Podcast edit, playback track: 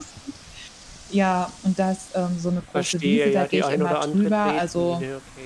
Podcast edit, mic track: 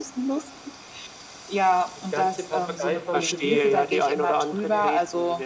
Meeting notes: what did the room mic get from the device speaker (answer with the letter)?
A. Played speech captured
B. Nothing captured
A